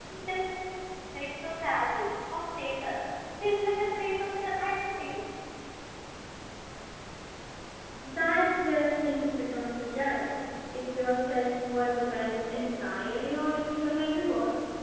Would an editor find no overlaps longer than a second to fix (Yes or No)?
Yes